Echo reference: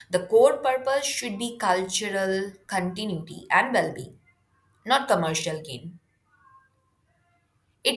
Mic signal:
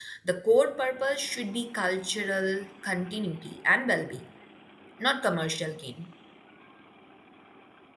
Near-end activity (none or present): none